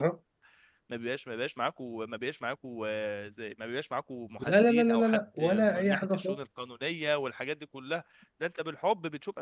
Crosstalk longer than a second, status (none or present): present